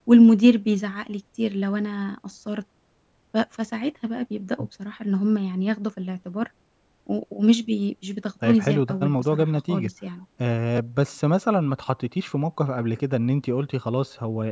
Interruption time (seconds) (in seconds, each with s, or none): 8.4 s